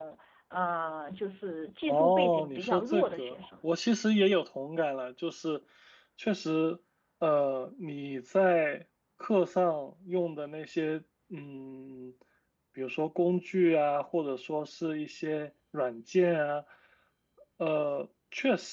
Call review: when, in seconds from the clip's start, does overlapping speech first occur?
1.9 s

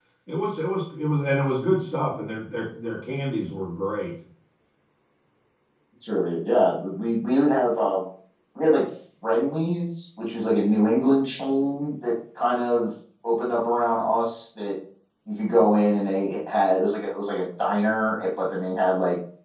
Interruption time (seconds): none

